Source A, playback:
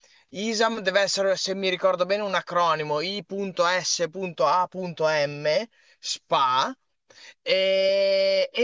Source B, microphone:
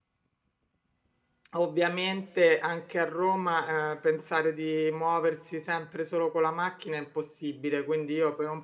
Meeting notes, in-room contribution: present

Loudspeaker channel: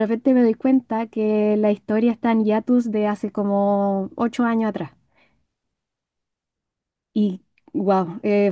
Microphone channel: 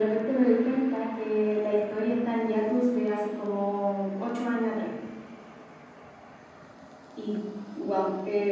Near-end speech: none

